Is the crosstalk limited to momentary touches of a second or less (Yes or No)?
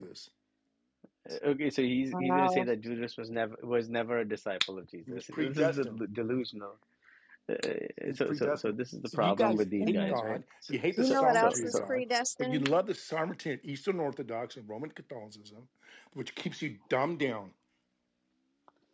No